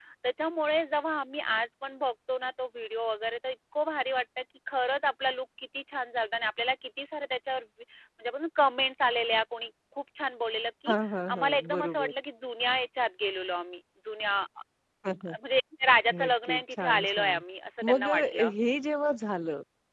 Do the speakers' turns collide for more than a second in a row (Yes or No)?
Yes